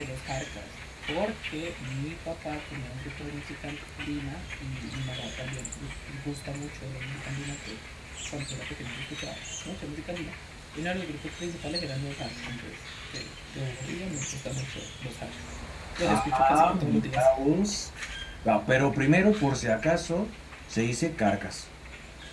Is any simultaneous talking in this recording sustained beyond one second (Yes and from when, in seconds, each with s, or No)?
Yes, from 16.1 s